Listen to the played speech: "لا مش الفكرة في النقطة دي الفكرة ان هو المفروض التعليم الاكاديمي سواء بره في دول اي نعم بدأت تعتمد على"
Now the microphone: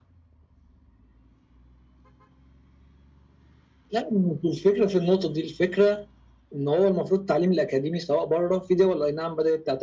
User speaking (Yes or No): No